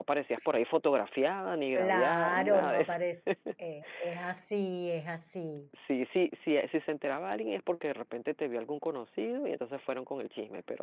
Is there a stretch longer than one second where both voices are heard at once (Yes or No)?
Yes